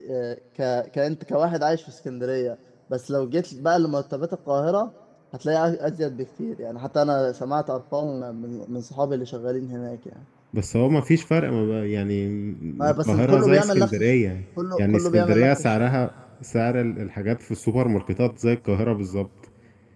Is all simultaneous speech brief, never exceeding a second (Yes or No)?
No